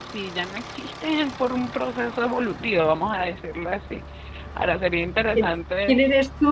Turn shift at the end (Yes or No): Yes